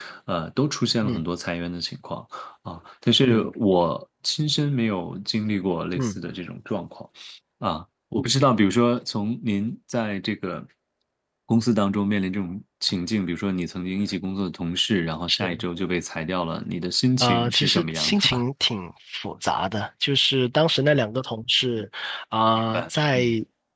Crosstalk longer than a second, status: present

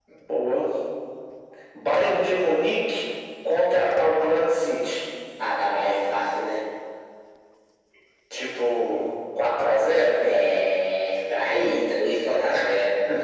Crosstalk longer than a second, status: none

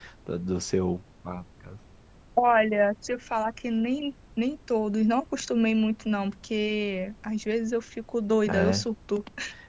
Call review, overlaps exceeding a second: none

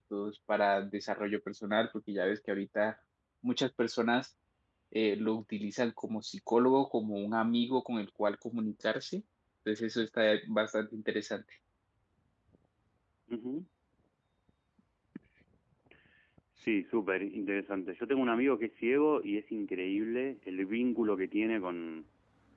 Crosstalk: none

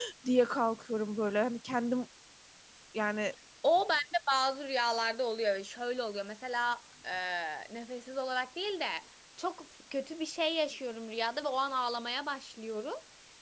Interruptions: none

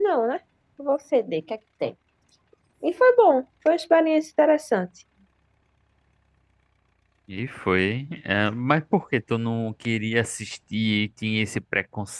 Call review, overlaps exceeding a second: none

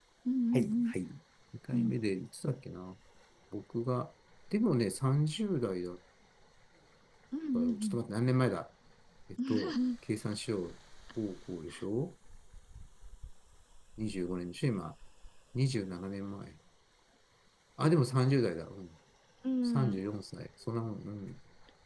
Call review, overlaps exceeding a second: none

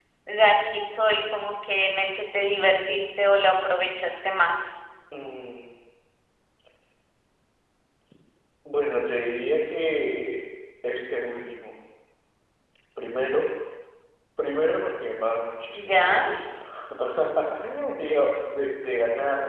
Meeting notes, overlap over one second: none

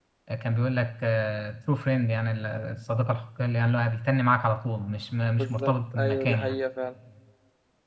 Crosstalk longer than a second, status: present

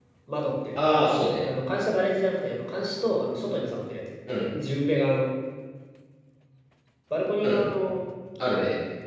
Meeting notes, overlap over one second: none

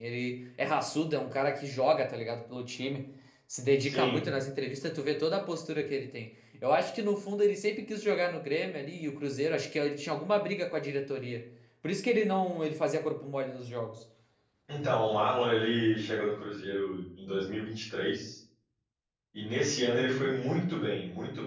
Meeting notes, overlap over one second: none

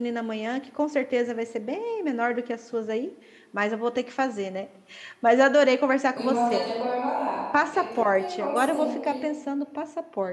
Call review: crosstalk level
present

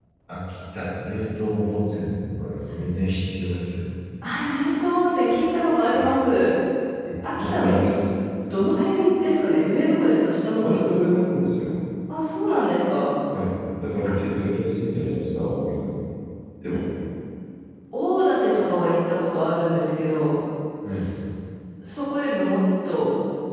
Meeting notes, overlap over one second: none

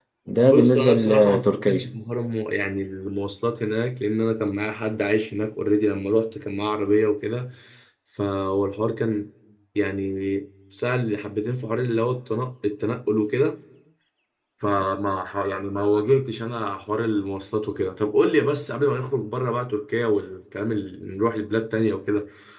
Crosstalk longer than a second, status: present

